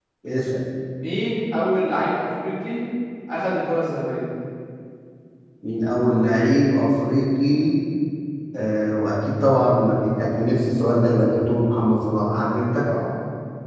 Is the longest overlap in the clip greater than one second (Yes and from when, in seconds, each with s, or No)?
No